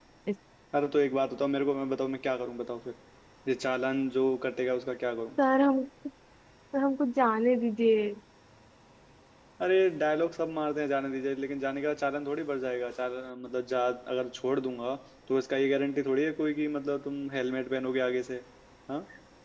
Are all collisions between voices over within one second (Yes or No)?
Yes